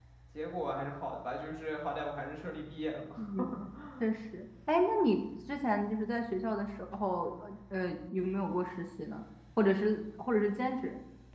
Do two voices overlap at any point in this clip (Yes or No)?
No